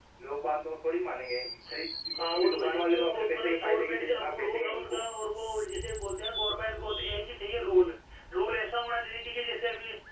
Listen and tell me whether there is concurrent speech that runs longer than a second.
Yes, from 2.3 s

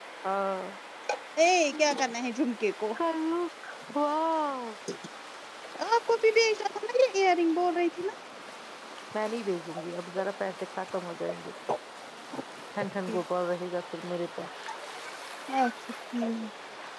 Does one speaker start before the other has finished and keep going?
No

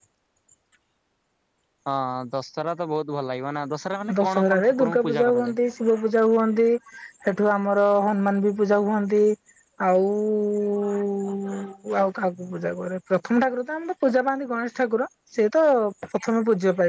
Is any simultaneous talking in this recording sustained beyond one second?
Yes, from 4.1 s

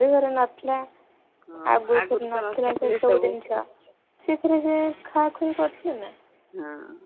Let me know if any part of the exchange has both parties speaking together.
Yes, from 1.9 s

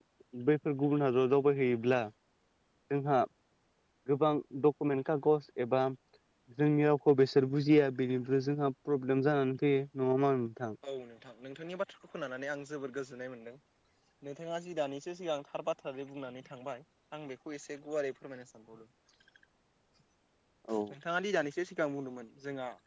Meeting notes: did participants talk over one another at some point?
No

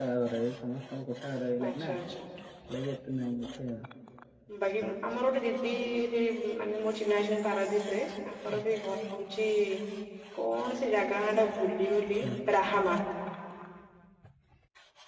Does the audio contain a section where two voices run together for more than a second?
No

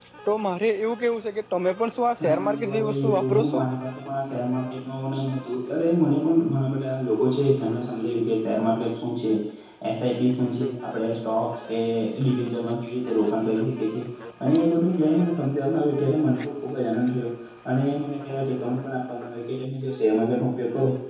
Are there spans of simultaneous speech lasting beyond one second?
Yes, from 2.2 s

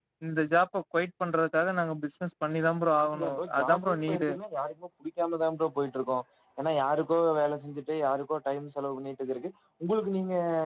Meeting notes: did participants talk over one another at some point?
Yes, from 3.0 s

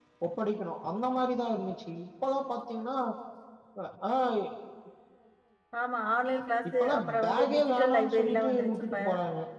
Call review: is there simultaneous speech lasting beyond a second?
Yes, from 6.6 s

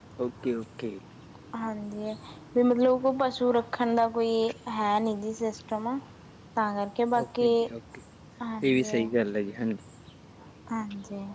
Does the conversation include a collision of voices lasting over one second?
No

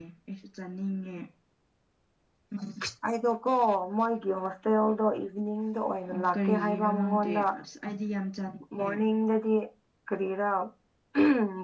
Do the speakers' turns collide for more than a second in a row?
Yes, from 6.1 s

